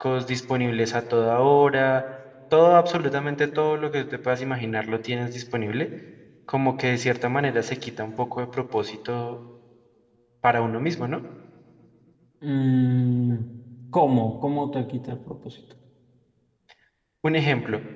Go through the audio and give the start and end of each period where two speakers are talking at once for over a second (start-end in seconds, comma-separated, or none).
none